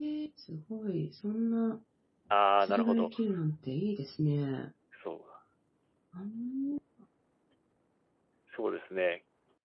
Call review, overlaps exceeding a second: none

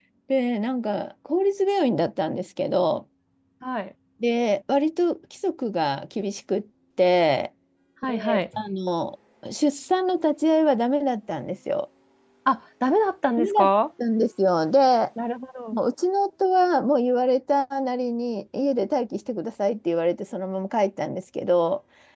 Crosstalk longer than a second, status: none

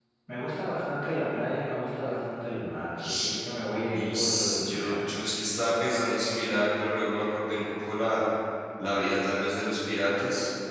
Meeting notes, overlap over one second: present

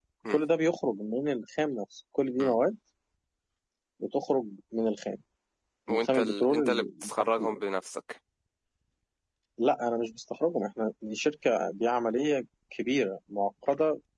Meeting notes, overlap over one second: present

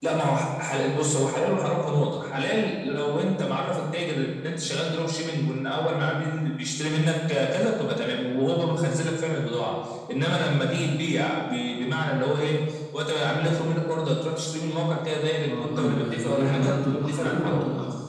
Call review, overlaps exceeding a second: present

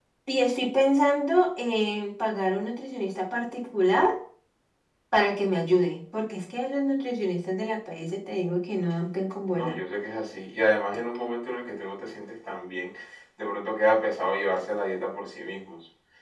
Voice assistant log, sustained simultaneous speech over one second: none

